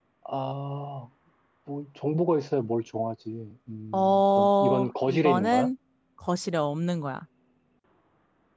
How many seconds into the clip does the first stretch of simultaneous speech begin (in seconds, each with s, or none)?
3.9 s